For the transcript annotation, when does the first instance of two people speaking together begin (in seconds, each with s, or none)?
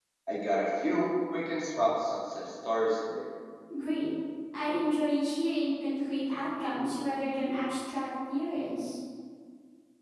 none